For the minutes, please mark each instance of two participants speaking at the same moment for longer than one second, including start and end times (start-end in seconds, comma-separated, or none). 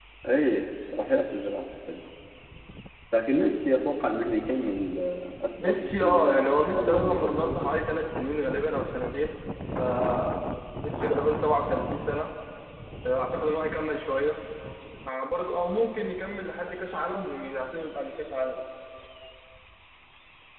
5.6-7.7